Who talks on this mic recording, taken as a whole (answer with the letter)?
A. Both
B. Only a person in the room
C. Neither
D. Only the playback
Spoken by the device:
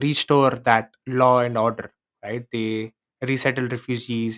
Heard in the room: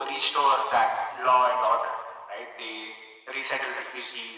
D